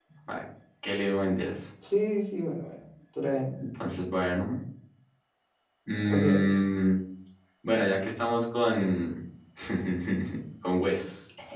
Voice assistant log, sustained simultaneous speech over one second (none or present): none